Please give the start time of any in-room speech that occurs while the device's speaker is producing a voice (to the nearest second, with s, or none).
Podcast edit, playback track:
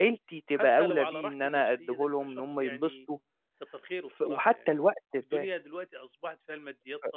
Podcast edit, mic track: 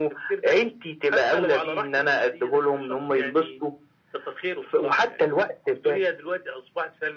none